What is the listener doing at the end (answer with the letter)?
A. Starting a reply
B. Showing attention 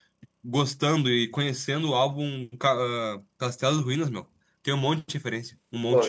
A